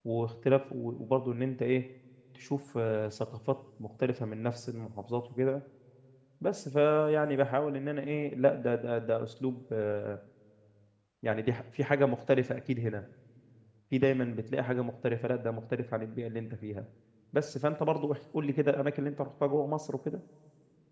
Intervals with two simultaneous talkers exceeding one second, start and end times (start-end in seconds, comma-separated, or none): none